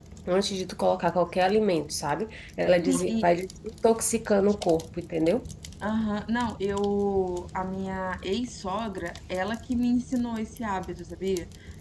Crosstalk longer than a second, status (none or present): none